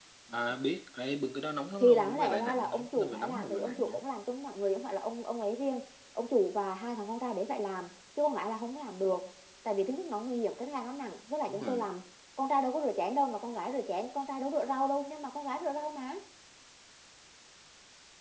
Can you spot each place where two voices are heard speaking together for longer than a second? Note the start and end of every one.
1.8-4.0

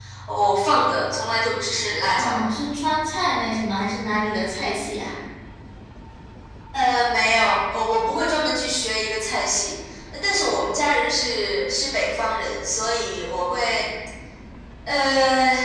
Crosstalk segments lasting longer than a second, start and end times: none

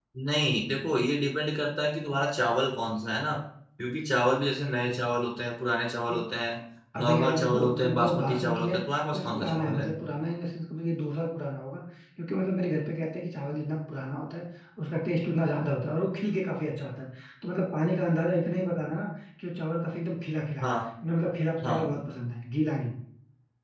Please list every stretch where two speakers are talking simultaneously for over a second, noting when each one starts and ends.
7.0-9.9

